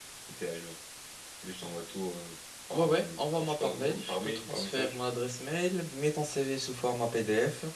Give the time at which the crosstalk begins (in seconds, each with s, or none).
2.7 s